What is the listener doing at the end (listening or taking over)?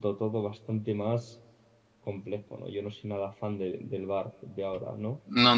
taking over